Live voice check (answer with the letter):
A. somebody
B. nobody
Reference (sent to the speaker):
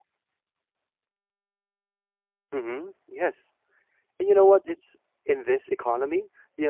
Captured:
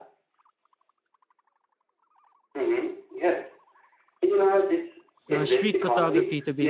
A